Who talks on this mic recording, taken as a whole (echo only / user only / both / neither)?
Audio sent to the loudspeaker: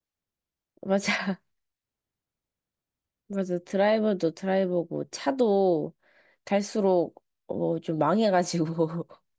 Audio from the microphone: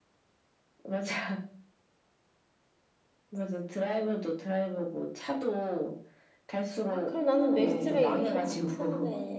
both